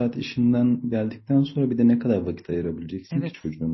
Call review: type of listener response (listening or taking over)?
taking over